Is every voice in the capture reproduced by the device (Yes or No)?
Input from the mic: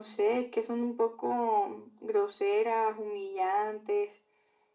Yes